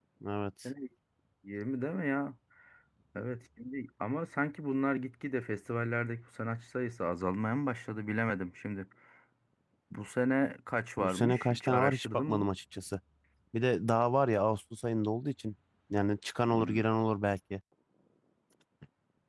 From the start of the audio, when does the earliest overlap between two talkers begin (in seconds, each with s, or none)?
11.0 s